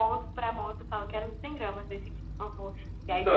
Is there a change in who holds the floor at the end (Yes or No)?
Yes